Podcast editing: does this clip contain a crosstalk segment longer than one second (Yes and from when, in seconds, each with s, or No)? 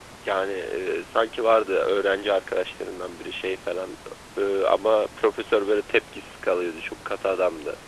No